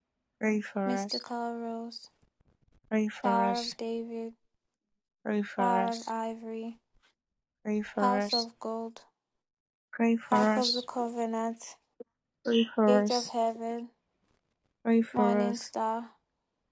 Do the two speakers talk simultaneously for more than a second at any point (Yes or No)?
No